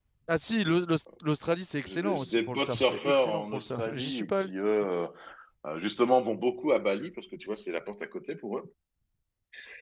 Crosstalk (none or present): present